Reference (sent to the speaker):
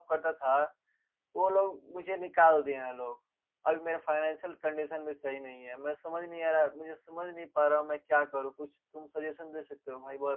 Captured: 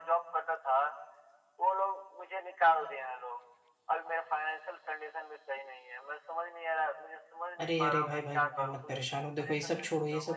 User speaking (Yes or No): Yes